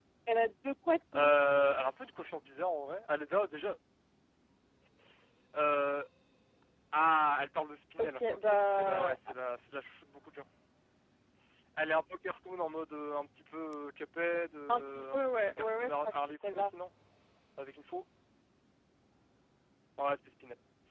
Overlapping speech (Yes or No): Yes